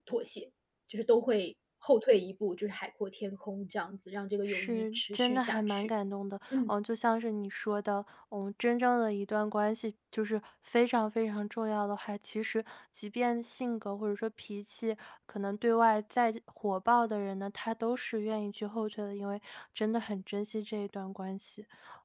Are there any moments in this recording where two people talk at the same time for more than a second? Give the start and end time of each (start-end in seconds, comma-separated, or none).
4.5-5.9